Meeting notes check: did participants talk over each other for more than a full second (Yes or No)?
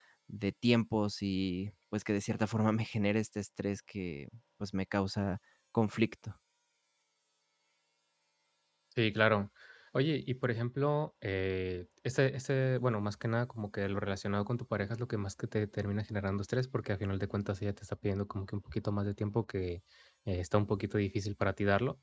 No